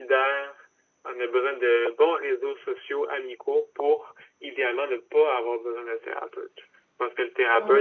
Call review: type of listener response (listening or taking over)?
listening